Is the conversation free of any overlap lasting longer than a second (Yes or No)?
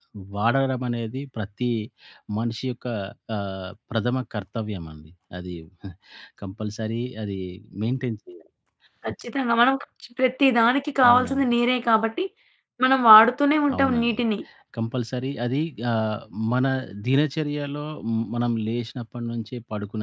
Yes